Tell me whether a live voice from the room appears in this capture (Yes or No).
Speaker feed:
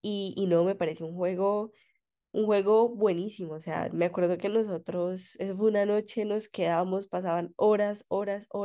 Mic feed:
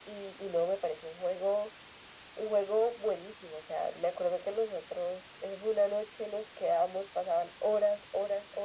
No